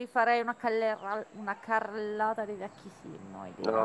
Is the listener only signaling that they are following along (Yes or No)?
No